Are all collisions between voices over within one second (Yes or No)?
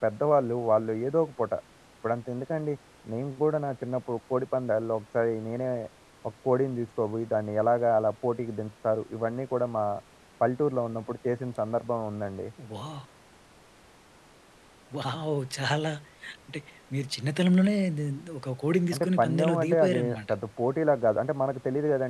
No